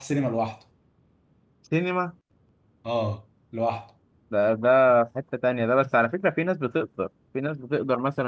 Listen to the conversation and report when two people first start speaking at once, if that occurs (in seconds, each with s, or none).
none